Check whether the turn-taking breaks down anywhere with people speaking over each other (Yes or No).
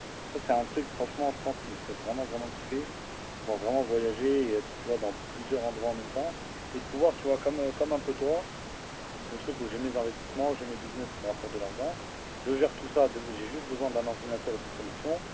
No